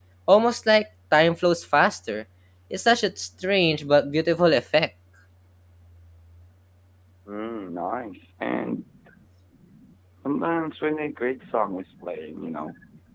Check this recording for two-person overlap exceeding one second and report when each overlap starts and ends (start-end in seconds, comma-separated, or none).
none